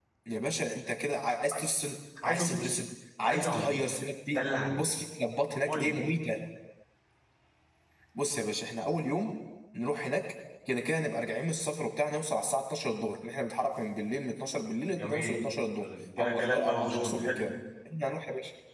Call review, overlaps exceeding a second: present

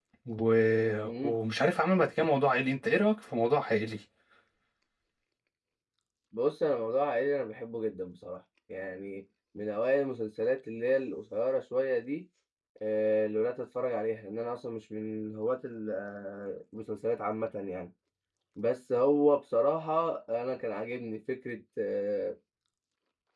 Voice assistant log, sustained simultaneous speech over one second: none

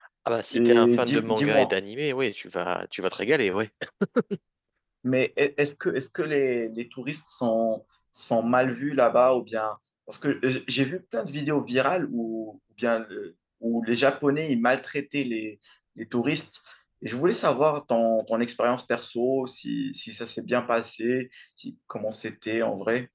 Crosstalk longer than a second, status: present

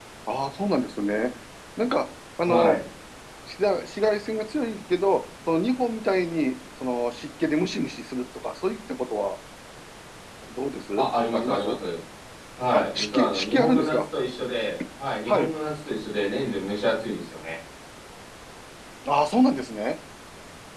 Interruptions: present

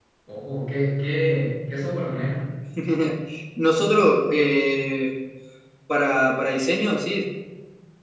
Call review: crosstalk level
none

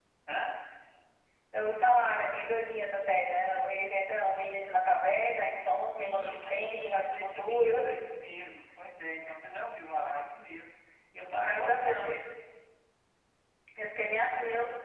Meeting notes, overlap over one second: present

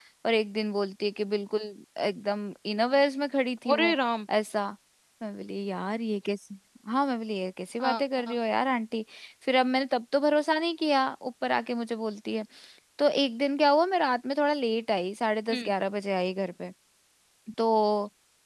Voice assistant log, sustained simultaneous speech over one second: none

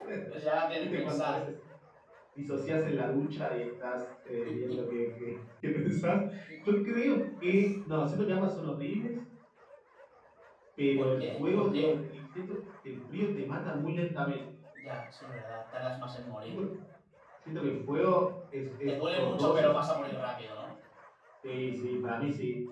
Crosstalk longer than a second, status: present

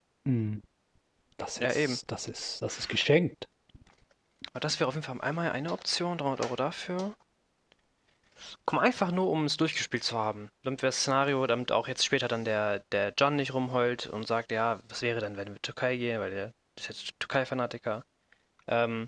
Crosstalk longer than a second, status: none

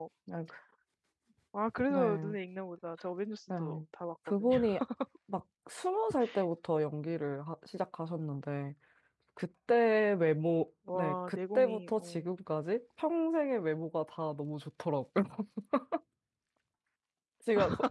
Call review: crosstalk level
present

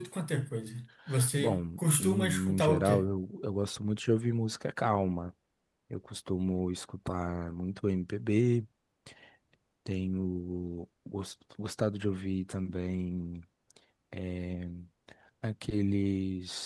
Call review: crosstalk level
present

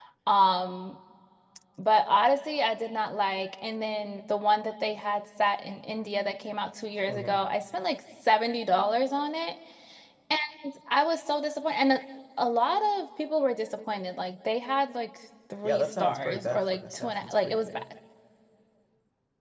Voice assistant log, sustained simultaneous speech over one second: present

